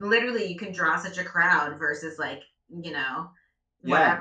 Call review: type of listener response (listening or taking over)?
listening